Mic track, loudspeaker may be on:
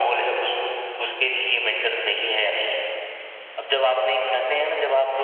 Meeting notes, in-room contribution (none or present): none